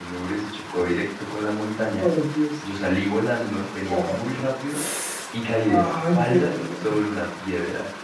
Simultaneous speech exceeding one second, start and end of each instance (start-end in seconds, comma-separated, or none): 5.7-6.9